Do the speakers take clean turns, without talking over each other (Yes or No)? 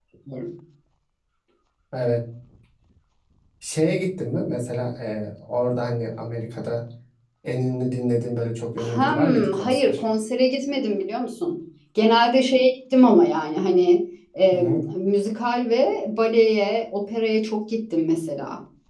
No